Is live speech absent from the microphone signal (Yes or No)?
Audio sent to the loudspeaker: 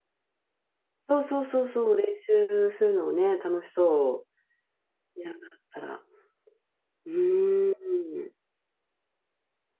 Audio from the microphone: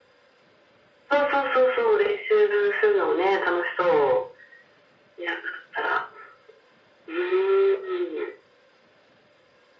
Yes